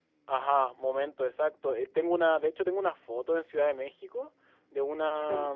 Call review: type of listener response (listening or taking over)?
listening